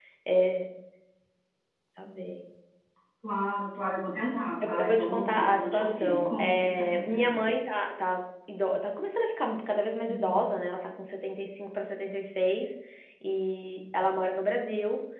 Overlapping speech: Yes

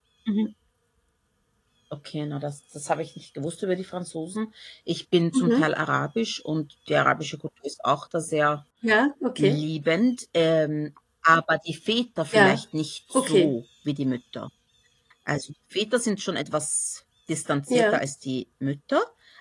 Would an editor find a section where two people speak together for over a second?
No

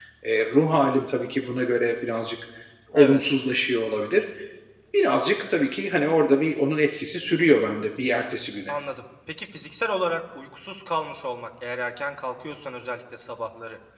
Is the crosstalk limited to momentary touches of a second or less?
Yes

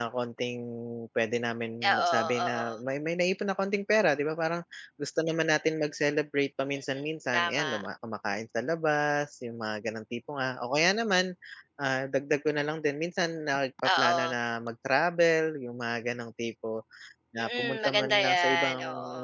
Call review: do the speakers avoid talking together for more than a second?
No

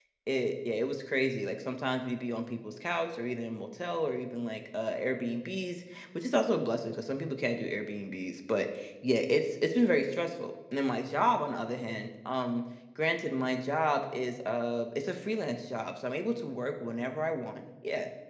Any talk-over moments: No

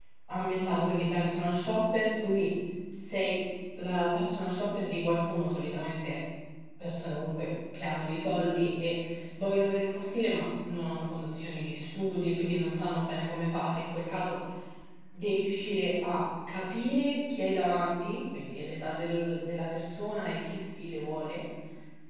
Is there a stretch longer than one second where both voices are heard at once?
No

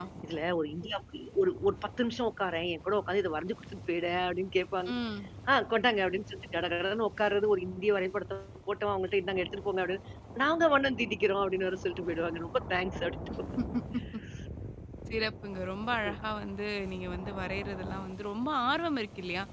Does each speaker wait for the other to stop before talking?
Yes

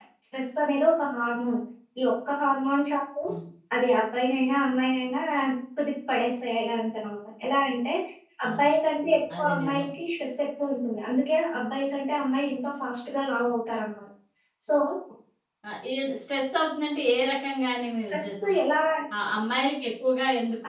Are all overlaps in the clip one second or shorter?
Yes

